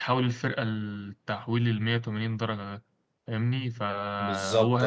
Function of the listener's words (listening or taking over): listening